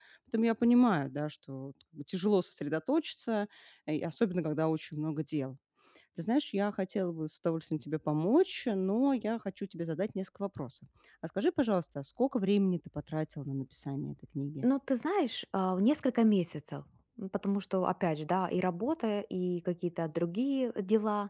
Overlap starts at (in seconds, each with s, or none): none